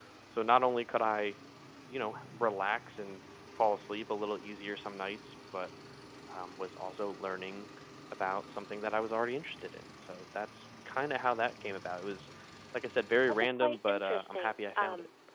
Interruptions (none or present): present